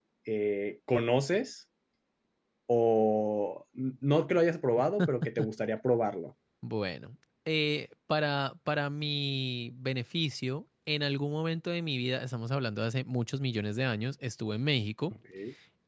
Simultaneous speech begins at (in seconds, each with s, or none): none